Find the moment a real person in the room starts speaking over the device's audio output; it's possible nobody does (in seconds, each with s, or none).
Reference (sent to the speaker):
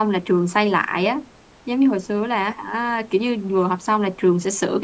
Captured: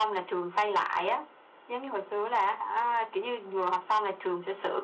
none